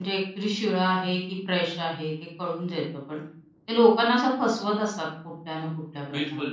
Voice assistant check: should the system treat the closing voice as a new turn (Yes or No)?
Yes